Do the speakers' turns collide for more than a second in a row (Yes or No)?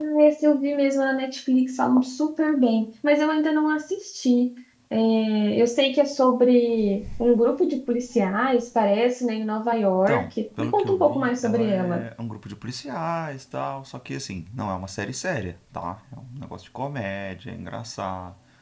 Yes